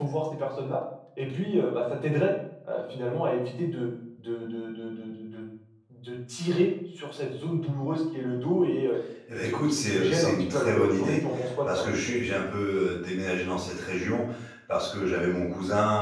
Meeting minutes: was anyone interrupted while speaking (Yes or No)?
Yes